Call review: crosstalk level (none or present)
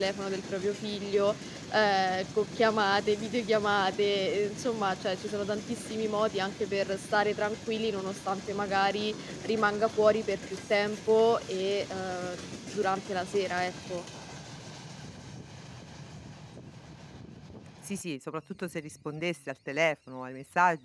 none